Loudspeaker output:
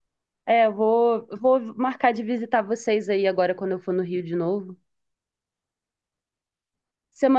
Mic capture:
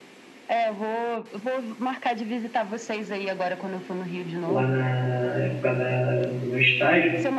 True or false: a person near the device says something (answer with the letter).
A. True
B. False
A